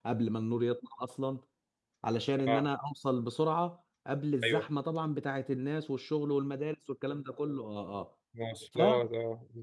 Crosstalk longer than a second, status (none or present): none